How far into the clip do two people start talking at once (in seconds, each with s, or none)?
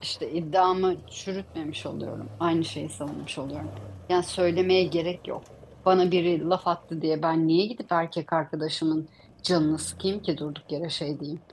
none